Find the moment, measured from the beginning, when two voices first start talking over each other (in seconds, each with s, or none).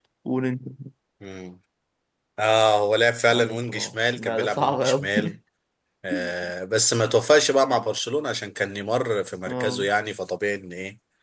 3.3 s